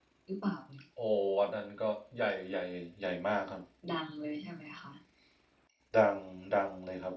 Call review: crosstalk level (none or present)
none